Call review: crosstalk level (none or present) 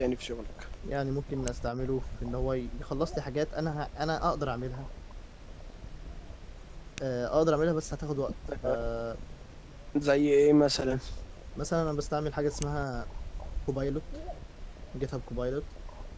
none